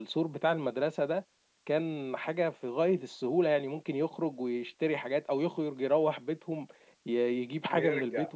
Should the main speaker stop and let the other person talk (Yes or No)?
Yes